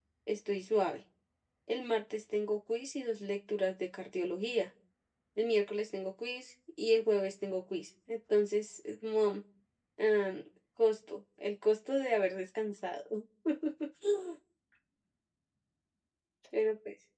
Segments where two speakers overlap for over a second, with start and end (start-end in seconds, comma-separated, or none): none